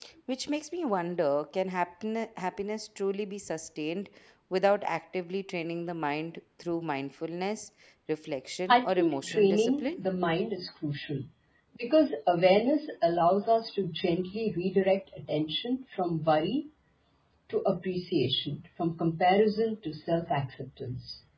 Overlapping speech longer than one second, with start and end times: 8.7-10.0

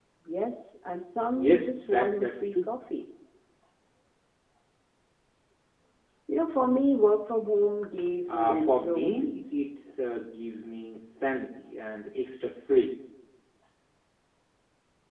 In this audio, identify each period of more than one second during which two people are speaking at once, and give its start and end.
1.3-2.7, 8.3-9.7

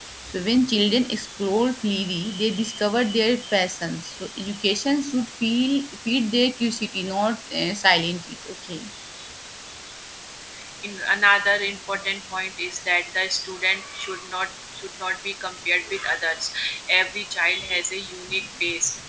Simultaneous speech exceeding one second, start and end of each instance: none

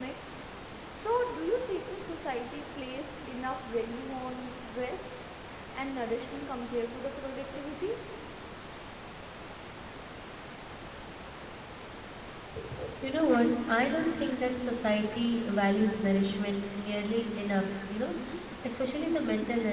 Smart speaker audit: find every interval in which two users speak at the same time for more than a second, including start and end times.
none

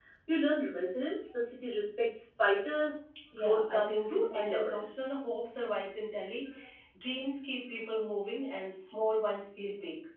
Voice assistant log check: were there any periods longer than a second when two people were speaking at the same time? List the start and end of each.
3.3-5.0

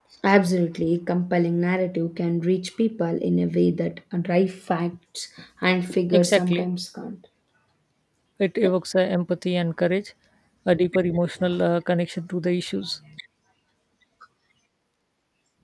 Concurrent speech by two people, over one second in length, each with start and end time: none

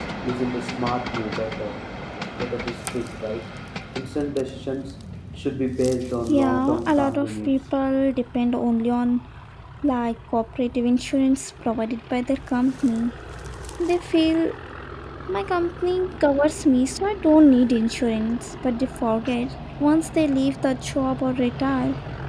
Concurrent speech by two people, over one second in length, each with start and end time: 6.3-7.6

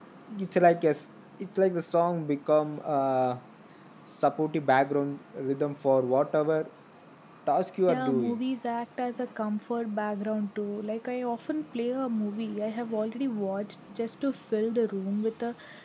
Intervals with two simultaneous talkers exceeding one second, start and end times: none

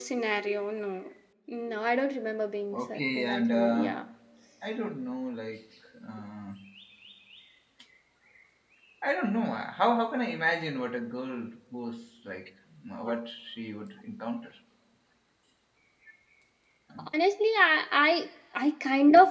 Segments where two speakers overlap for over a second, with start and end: 2.7-3.9

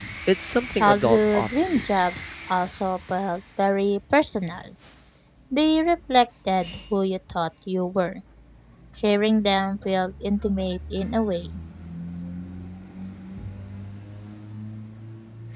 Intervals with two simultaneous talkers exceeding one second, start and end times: 0.8-2.1

